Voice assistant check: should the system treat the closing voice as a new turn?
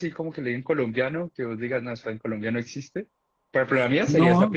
Yes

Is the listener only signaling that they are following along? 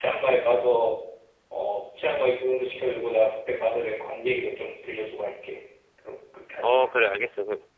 No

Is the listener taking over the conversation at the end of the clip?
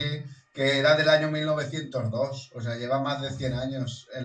No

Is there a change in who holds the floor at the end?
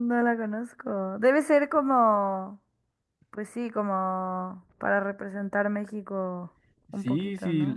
Yes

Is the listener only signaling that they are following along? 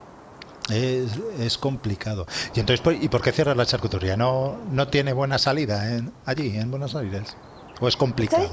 No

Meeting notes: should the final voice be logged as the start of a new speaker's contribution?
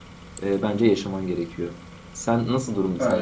No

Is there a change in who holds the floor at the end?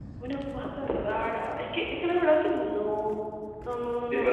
Yes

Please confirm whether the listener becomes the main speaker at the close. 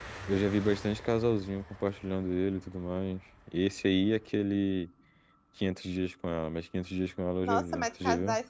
Yes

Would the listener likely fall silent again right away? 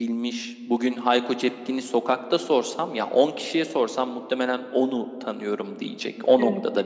No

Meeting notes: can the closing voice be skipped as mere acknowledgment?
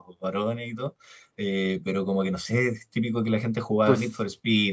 Yes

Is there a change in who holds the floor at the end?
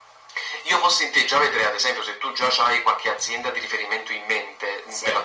No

